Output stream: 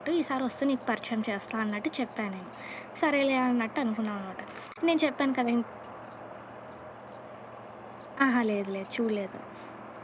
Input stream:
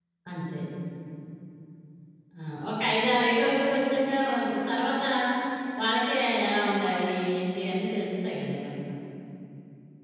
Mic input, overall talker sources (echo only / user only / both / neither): user only